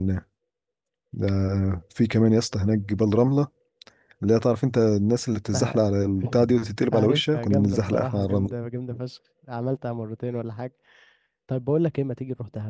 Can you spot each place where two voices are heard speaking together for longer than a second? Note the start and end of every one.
6.9-8.6

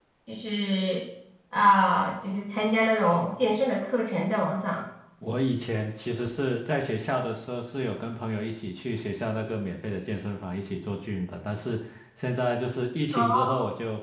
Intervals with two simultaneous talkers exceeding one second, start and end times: none

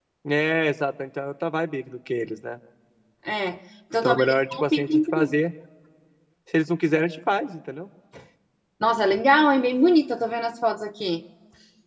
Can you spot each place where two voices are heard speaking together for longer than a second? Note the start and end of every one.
4.0-5.3

